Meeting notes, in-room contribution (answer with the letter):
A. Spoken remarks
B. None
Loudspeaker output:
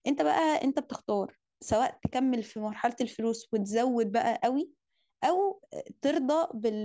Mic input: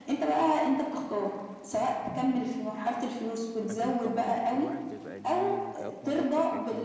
A